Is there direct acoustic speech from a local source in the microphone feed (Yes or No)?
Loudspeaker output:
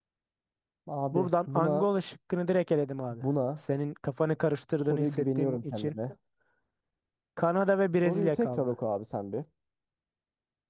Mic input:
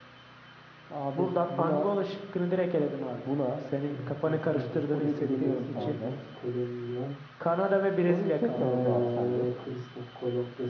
Yes